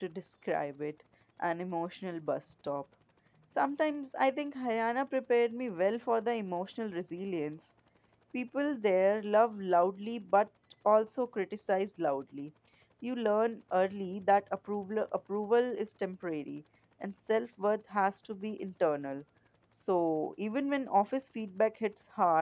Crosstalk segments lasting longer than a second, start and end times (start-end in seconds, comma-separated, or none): none